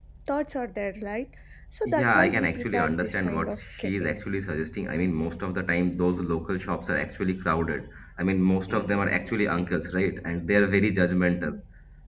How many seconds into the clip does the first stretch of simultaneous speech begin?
1.9 s

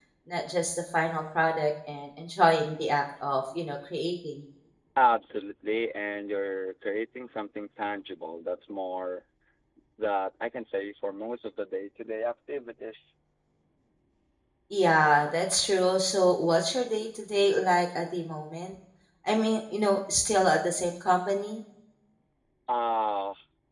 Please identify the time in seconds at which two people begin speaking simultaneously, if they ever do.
none

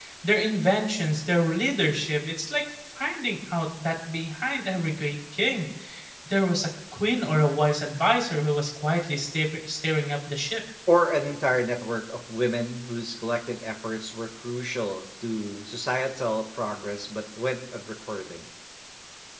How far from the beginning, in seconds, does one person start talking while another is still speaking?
none

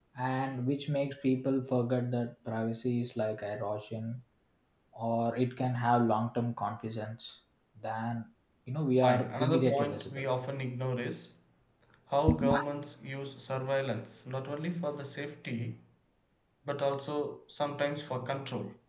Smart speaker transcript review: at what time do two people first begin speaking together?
9.0 s

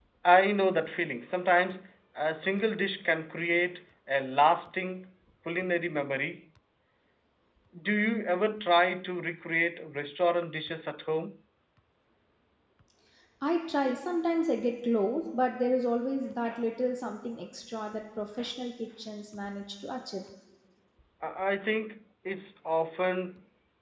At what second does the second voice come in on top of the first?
none

